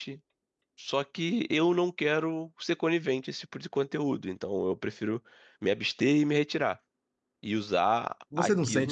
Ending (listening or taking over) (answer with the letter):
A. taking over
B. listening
A